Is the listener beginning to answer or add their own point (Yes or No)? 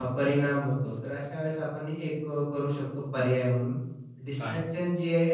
No